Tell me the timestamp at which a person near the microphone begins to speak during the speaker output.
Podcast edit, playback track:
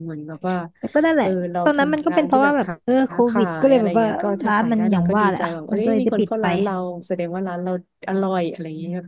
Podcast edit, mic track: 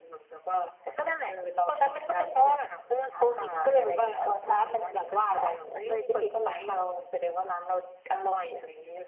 none

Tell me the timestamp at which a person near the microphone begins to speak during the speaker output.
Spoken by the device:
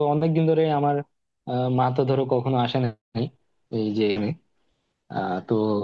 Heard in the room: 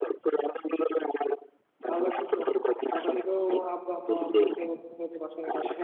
1.9 s

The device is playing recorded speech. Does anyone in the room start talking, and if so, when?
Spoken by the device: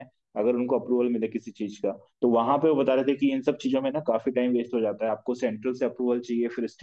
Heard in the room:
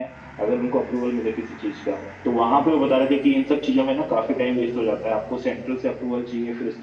none

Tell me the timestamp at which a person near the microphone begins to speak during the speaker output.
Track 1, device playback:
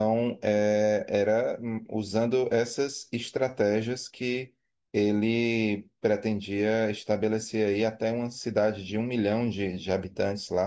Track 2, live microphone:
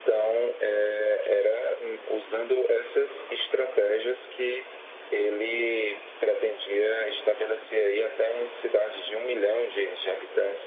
none

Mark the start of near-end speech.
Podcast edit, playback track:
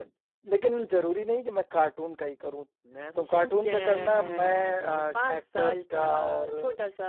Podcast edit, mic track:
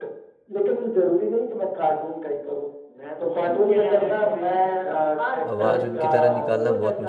5.5 s

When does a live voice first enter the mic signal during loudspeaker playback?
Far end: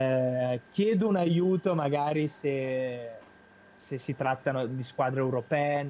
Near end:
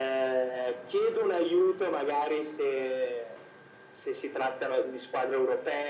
none

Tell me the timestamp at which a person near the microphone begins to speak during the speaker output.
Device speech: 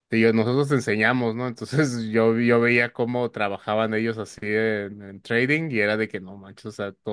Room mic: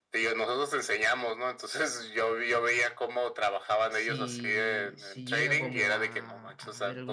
3.9 s

